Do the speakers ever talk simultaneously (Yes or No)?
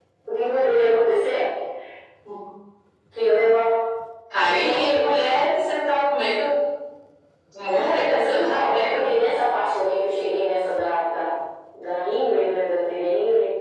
Yes